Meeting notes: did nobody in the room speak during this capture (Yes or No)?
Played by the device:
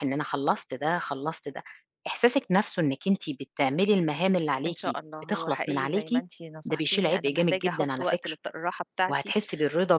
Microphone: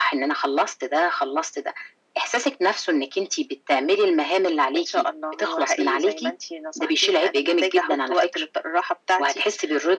Yes